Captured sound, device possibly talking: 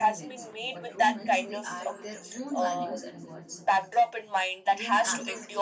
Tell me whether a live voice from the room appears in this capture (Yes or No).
Yes